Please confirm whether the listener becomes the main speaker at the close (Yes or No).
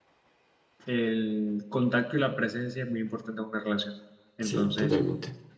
No